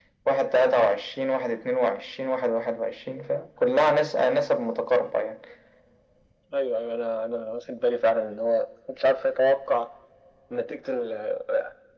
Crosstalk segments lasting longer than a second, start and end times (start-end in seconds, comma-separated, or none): none